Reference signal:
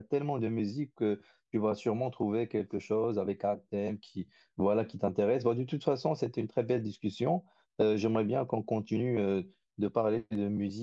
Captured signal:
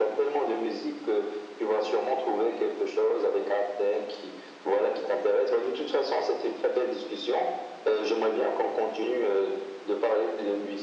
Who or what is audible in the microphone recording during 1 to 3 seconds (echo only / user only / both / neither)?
echo only